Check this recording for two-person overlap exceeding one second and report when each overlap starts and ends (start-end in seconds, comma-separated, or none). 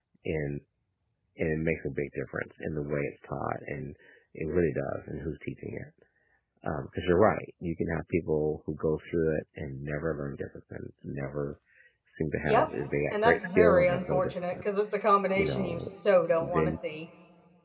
13.1-14.6